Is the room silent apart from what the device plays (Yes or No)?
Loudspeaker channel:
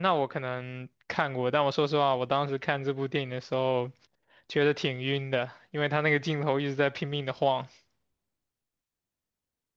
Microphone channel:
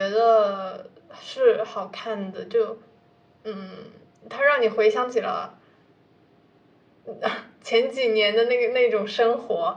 No